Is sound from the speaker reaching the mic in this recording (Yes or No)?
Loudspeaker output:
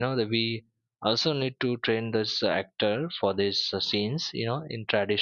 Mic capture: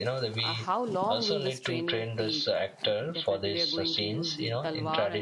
Yes